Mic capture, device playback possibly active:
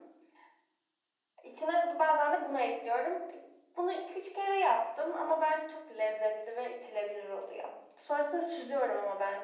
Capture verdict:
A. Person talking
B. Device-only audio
B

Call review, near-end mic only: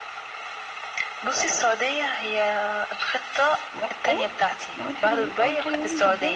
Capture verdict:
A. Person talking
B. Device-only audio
A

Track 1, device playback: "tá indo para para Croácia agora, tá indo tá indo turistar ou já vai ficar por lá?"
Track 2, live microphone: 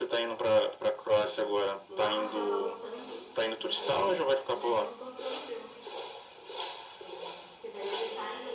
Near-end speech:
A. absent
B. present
B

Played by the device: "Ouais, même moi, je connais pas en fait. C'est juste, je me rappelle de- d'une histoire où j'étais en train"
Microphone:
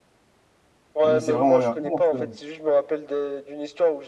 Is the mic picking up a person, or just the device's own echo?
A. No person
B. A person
B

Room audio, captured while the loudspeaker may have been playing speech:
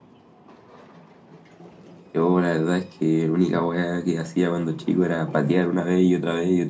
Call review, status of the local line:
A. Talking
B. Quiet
A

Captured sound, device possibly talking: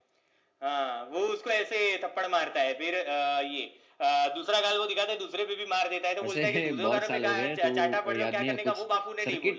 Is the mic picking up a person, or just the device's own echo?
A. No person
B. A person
B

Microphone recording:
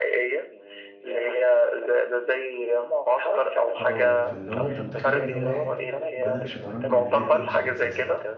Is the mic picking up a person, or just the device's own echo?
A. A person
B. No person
A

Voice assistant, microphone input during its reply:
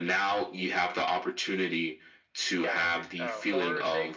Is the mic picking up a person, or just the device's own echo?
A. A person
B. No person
A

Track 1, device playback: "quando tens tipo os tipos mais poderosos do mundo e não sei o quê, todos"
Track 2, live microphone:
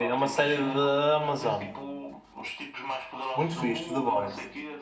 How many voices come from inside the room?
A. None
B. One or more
B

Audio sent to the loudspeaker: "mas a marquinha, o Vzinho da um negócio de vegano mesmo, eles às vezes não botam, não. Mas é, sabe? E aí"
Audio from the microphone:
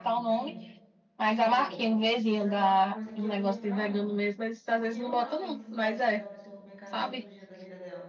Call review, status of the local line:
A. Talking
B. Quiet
A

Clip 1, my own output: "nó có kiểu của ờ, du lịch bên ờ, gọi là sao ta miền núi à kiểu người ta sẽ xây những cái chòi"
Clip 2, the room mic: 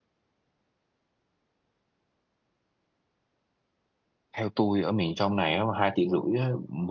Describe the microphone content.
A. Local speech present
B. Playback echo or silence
A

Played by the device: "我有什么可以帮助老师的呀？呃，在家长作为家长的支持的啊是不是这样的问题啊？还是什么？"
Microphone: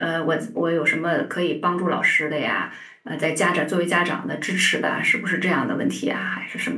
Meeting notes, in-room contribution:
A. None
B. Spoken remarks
A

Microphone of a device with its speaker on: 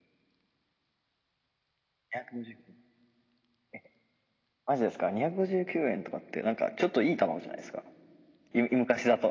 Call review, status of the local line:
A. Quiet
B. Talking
A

